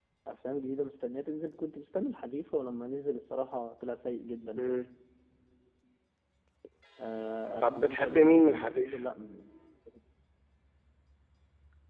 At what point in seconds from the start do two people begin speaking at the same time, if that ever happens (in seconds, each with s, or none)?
7.6 s